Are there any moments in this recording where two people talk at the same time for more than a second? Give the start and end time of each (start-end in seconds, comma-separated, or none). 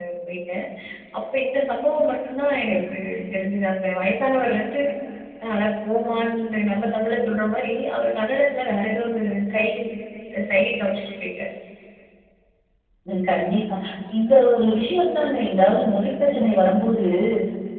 none